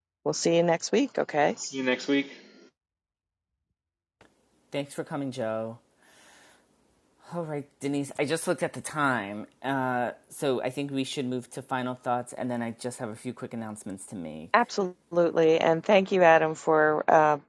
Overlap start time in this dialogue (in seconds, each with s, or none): none